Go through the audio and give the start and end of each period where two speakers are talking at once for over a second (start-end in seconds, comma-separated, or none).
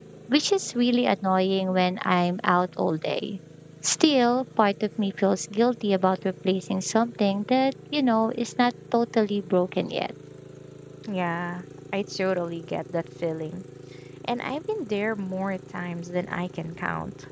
none